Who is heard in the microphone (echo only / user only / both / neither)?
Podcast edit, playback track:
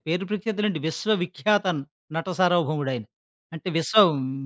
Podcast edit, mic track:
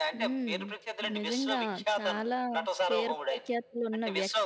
both